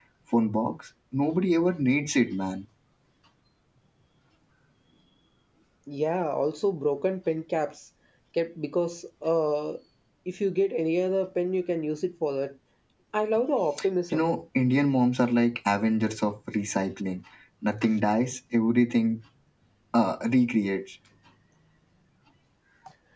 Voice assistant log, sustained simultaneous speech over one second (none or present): none